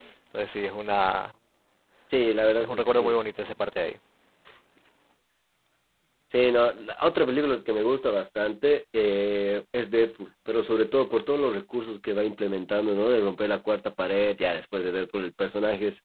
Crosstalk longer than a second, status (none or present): none